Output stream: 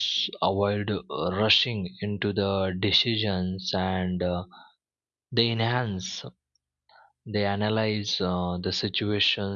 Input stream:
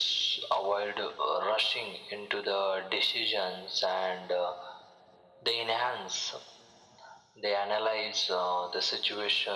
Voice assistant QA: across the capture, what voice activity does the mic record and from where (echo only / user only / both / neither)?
echo only